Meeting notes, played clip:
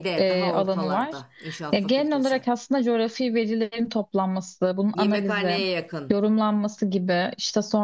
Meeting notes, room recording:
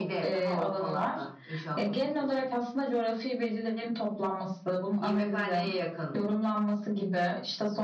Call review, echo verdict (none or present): present